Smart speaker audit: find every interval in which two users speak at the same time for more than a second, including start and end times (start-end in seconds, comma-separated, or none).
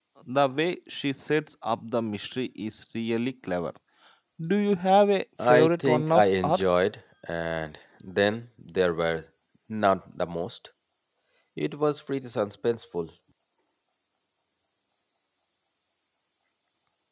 5.4-6.7